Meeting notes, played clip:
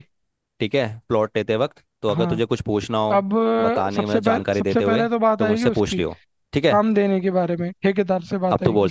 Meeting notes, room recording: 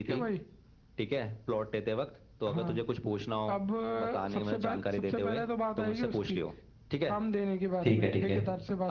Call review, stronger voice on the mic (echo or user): user